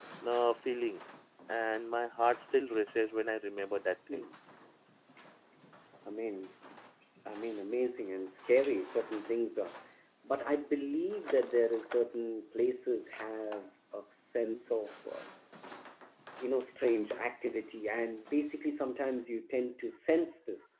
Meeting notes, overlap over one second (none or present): none